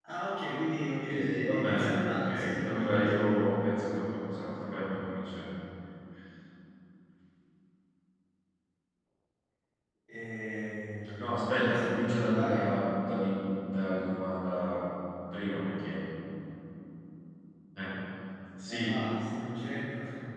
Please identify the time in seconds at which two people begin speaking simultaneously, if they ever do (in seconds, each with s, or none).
1.1 s